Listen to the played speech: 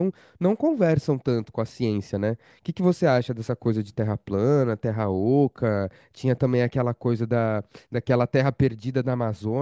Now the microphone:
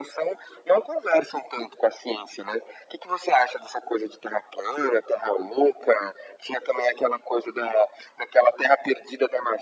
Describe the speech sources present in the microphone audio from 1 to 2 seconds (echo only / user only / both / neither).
echo only